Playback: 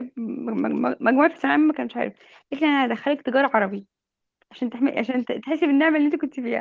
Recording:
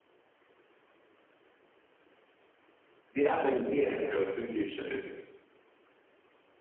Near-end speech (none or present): present